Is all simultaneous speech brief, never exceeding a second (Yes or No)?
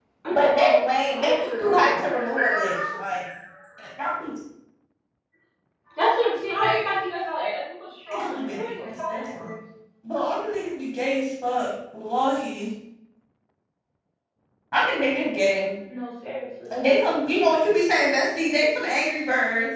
No